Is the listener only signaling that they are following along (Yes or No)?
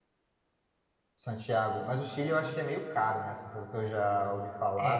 No